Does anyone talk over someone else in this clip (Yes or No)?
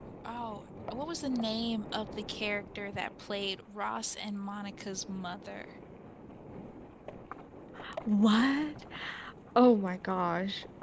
No